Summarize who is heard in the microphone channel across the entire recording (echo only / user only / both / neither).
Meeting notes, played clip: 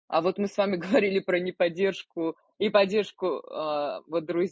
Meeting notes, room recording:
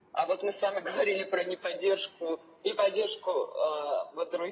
echo only